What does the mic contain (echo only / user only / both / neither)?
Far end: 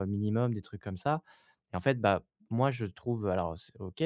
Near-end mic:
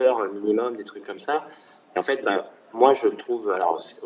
echo only